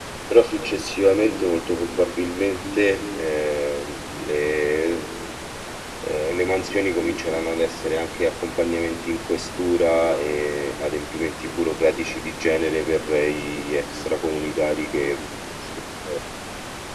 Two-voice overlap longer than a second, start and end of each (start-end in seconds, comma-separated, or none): none